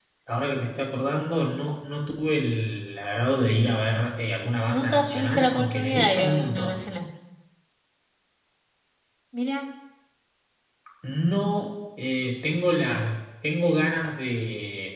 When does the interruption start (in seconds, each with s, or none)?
4.7 s